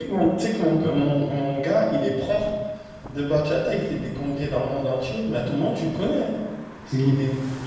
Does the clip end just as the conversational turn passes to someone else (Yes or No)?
No